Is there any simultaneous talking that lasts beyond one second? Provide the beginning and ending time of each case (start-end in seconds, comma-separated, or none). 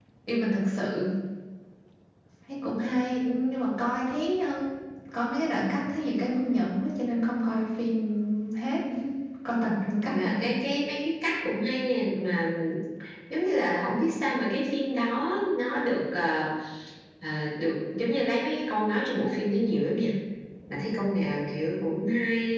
none